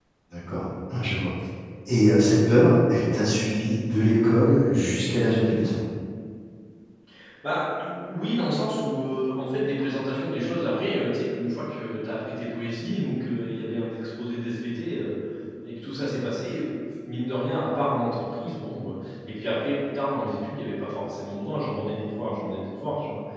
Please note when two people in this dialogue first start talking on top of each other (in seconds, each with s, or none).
none